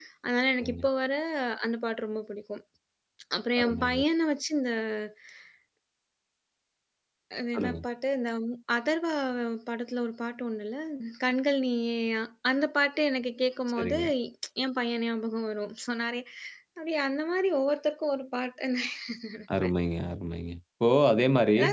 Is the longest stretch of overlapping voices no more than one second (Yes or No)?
Yes